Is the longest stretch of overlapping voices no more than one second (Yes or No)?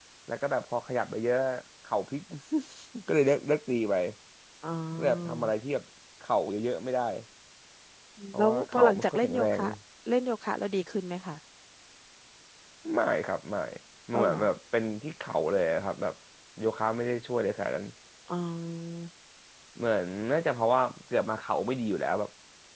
No